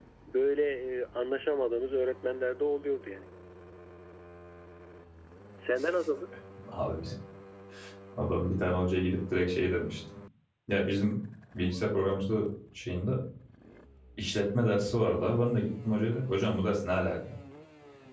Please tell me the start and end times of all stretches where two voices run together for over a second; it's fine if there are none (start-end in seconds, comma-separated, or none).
none